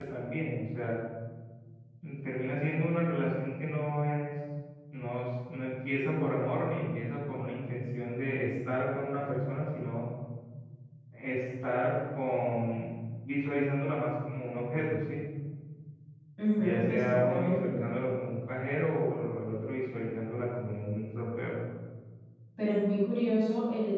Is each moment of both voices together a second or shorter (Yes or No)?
No